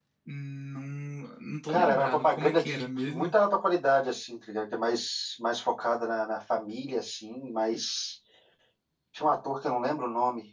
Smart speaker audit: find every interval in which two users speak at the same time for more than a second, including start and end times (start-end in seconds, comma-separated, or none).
1.7-3.3